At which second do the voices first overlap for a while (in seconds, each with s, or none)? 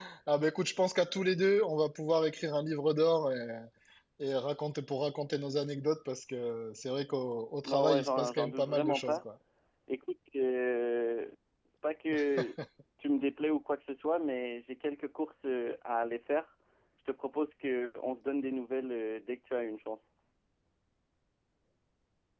7.6 s